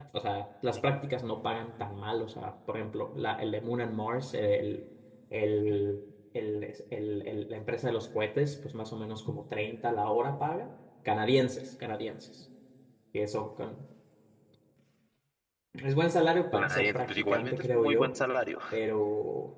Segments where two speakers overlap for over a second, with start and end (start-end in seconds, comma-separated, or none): 16.5-18.2